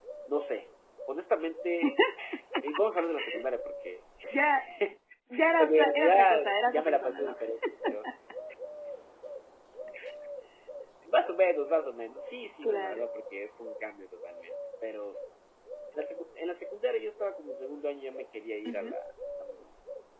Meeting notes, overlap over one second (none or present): present